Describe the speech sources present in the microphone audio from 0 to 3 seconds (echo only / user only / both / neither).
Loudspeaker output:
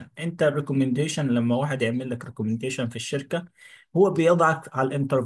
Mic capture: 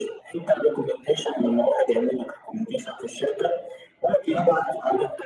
echo only